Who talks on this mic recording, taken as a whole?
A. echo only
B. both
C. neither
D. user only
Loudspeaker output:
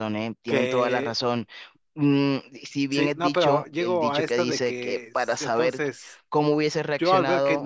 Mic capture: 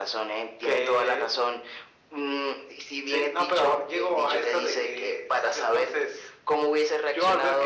A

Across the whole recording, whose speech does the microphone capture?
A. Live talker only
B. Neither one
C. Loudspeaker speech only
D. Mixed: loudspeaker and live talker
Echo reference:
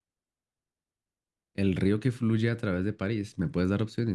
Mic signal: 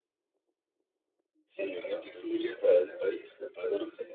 D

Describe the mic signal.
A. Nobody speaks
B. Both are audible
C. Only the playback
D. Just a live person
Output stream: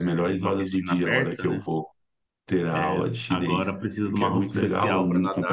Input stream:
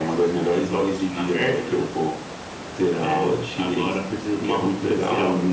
C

